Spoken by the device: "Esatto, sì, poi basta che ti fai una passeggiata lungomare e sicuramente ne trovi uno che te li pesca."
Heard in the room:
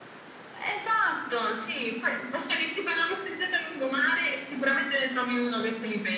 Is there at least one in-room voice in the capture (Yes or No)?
No